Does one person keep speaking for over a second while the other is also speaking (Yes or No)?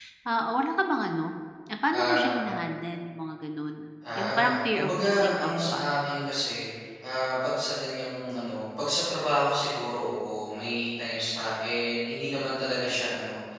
Yes